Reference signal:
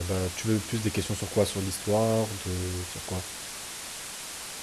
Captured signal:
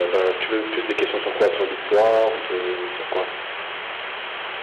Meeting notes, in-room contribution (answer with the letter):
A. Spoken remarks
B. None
B